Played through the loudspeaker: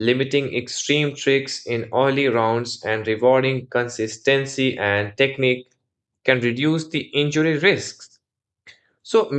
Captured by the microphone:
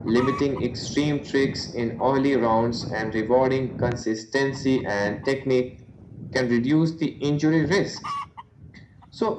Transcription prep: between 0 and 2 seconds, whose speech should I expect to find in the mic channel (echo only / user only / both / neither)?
echo only